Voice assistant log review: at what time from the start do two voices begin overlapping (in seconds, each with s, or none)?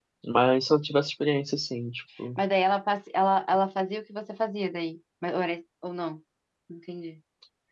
none